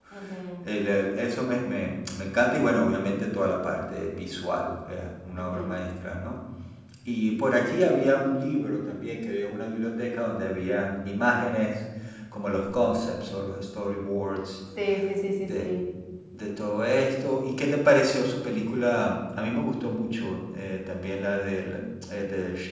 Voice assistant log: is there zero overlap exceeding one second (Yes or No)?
Yes